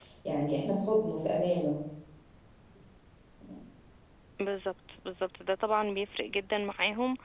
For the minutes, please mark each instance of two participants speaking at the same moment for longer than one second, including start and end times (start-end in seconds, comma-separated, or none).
none